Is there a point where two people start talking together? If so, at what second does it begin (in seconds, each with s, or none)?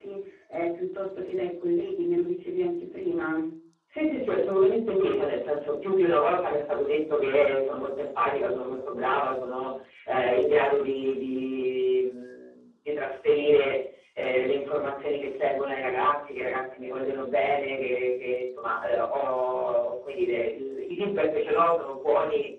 none